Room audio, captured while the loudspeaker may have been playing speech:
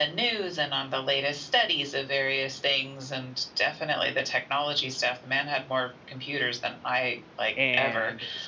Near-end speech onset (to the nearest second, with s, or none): 8 s